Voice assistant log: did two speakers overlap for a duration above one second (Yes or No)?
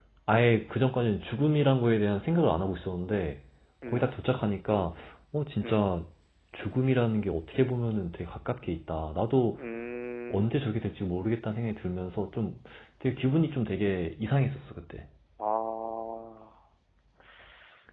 No